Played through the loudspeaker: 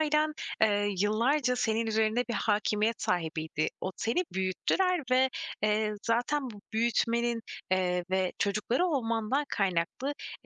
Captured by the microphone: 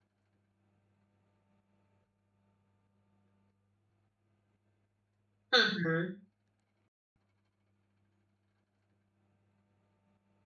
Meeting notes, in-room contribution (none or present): present